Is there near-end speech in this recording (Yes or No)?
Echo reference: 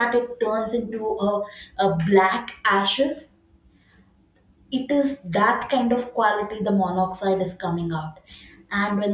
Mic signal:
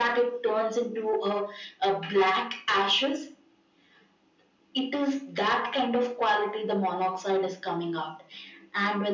No